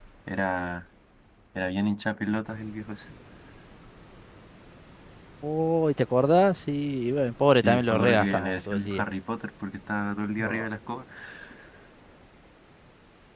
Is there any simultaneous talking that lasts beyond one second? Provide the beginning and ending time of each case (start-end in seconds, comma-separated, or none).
7.6-9.0